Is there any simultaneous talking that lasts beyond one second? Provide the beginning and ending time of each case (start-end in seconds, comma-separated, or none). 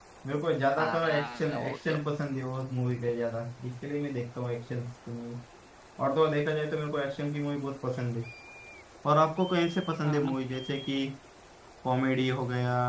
0.8-2.0